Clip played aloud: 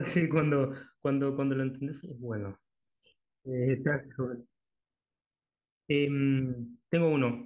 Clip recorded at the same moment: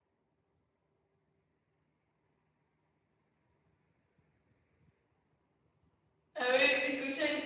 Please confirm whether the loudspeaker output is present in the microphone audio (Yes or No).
No